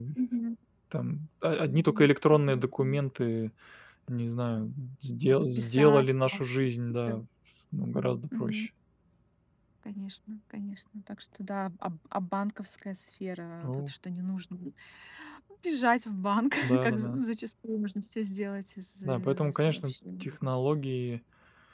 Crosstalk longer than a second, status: present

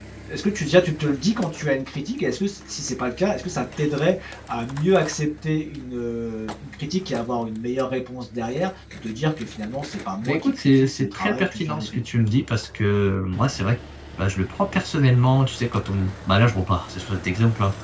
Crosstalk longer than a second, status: present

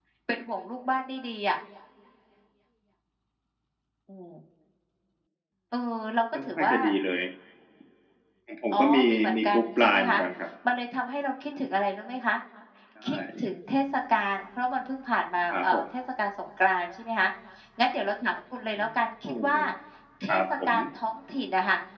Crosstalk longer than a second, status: present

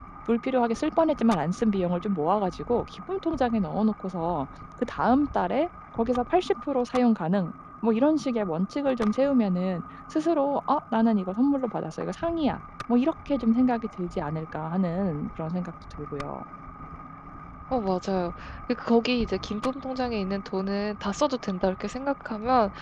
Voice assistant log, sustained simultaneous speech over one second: none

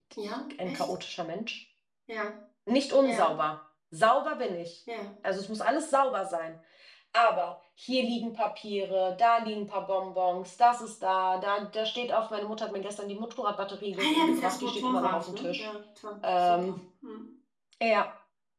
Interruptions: present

